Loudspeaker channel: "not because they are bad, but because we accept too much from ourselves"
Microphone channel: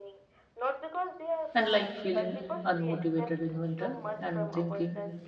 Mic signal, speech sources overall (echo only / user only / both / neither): both